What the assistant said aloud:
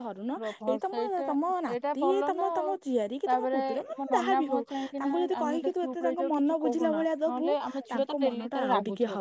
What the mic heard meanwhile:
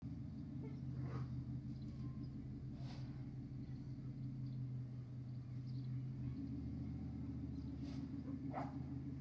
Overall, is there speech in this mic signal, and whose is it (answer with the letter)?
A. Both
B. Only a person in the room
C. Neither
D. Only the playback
C